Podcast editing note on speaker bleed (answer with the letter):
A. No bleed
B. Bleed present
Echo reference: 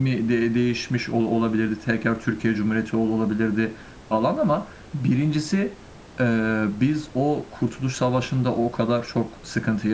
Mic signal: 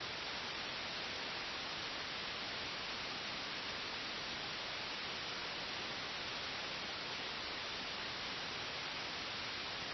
A